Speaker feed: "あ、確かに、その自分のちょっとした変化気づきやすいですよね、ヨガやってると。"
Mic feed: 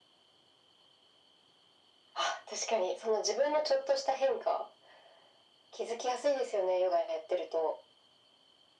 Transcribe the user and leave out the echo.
none

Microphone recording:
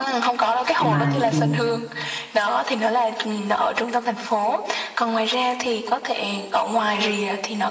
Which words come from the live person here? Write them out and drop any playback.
nhưng mà ừ,

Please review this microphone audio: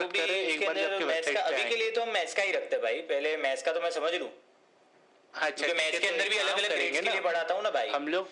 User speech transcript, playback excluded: none

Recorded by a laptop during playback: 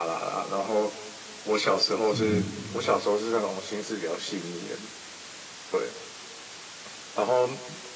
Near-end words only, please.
嗯，

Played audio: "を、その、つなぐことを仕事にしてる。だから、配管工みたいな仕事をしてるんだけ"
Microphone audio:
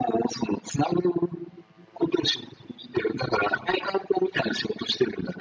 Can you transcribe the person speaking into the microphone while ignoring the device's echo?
none

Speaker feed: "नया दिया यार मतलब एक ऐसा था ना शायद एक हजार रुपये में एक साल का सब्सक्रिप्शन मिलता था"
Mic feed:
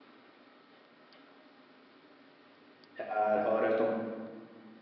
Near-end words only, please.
यार हॉरर तो

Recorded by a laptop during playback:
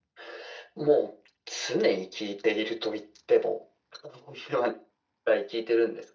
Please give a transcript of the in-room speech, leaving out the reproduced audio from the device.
none

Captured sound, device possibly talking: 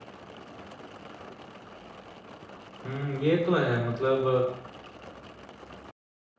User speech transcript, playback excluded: हम्म ये तो है मतलब

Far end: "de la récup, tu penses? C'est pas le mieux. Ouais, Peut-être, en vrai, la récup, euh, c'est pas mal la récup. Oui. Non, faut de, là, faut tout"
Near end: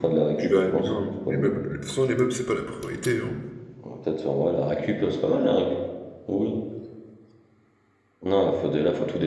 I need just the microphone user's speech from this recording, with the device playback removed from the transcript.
Je verrais bien hein, pour les meubles. De toute façon, les meubles, c'est pas la priorité, hein.

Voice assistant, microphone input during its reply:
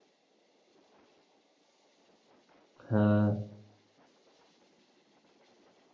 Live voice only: Ha

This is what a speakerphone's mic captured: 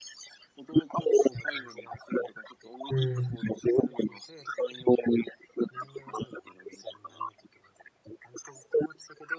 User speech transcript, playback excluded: うん、

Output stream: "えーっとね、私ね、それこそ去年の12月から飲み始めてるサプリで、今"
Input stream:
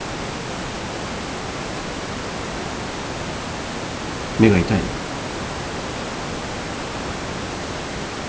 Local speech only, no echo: 目が痛いの

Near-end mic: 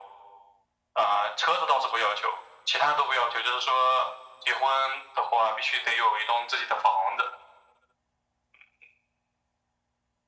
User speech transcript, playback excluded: none

